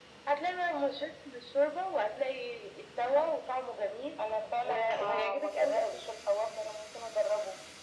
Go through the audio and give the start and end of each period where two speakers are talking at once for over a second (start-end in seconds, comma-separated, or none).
4.6-6.0